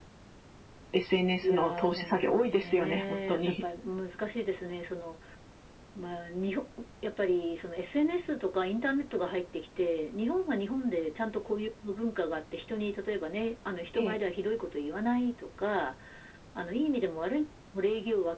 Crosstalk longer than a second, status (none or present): present